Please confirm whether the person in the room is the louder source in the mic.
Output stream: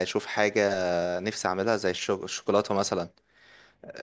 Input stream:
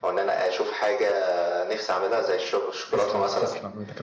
No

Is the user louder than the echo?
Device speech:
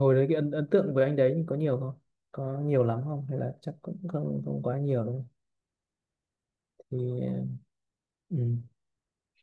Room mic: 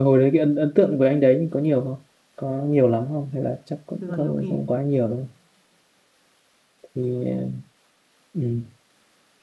No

